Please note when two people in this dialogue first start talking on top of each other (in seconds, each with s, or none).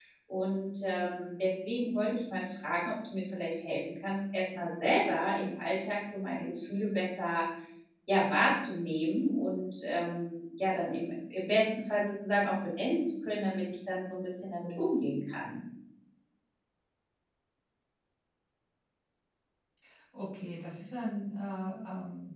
none